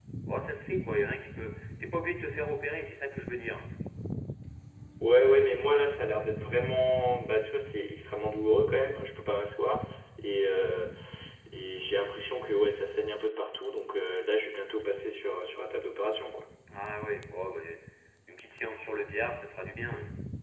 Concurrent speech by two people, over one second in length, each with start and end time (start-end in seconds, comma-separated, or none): none